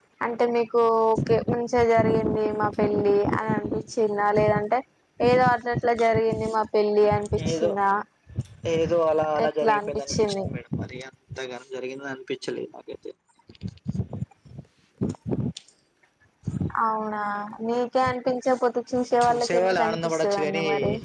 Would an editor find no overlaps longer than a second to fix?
No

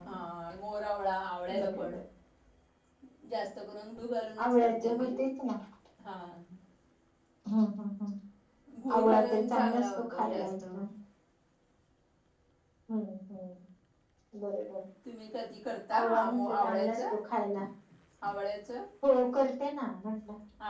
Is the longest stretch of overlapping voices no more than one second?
No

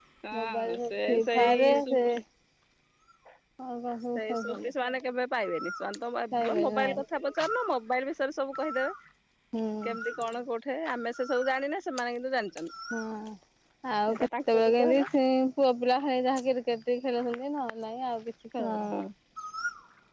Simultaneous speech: Yes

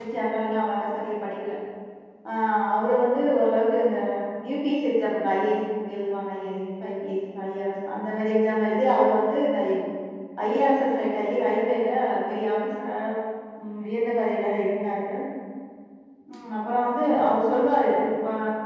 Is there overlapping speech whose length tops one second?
No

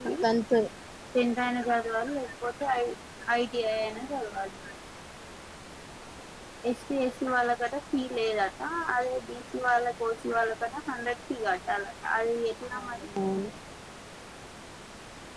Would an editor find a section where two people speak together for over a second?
No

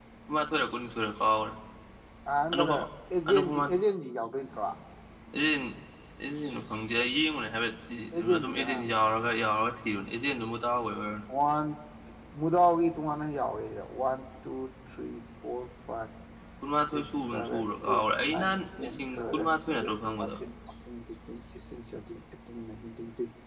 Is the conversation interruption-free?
No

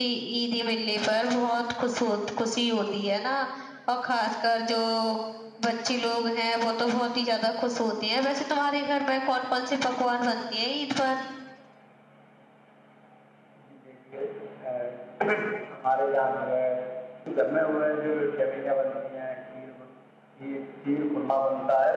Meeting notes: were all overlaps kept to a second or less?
Yes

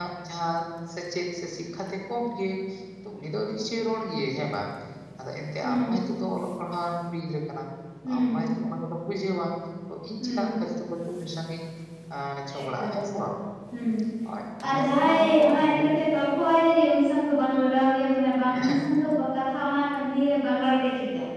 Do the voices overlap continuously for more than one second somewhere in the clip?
Yes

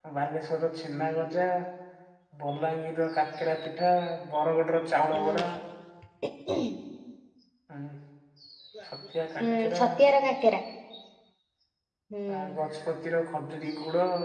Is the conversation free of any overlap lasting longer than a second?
Yes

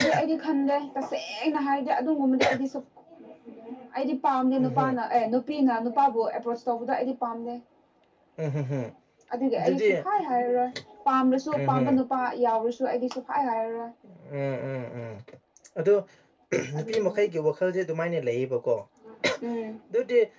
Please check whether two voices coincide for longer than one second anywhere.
No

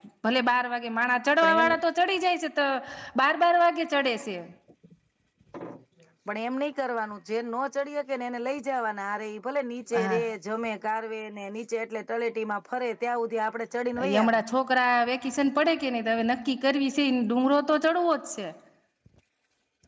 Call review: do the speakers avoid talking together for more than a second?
Yes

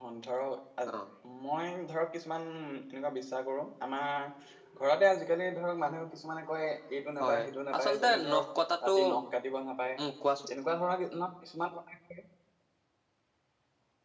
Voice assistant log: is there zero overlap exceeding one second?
No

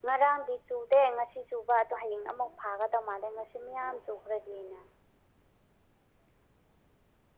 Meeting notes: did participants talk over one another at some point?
No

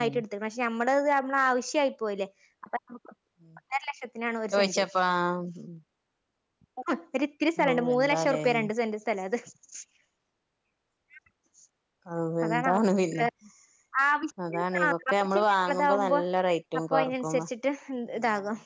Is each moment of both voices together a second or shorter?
No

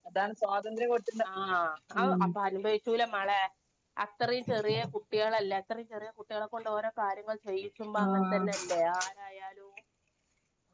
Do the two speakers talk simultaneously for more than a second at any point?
No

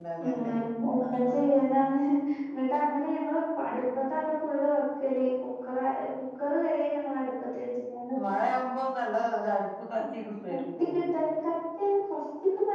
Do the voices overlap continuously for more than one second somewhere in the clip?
No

